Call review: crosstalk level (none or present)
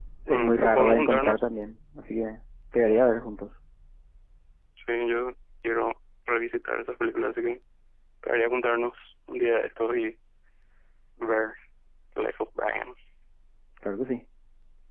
present